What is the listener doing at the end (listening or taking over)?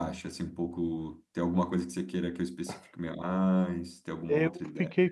taking over